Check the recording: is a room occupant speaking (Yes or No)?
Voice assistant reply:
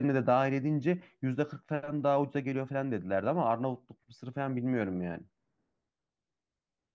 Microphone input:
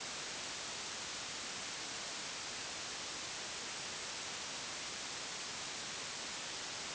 No